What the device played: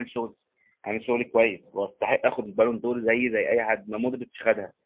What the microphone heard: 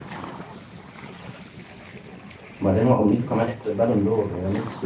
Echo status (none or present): none